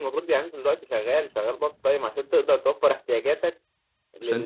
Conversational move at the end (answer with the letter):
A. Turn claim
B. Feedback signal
B